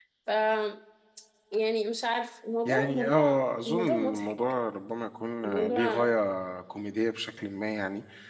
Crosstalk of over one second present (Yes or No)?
Yes